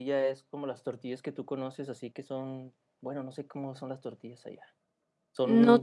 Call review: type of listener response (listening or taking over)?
taking over